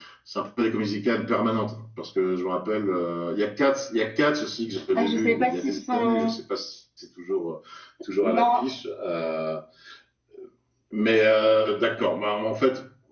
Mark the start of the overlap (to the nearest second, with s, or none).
5 s